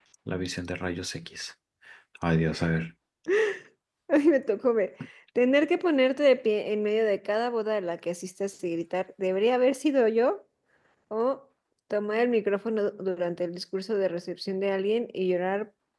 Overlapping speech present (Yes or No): No